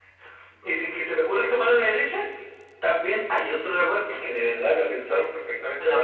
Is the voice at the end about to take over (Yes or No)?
No